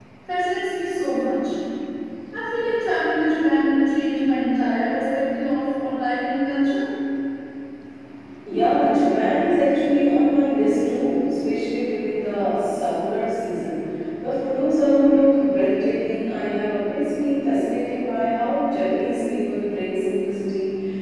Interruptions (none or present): none